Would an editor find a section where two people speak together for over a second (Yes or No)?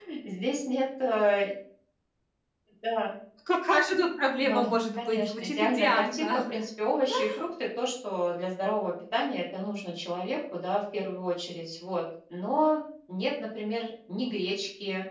Yes